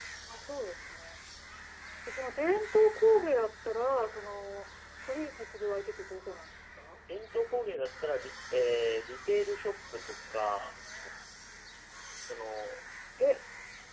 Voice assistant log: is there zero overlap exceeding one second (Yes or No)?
Yes